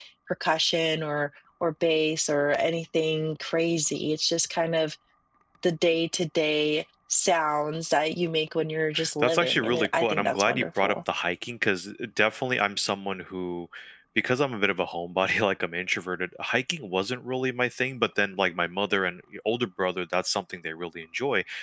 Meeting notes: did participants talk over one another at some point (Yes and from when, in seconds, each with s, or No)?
Yes, from 9.2 s